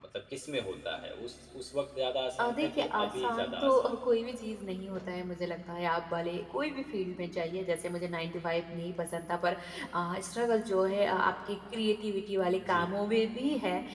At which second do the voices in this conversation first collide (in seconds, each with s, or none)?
2.4 s